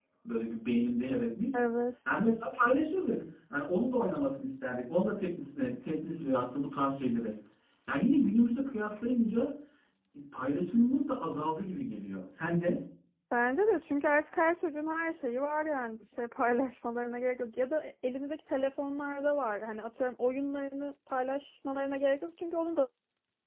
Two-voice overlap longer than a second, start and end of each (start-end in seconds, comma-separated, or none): none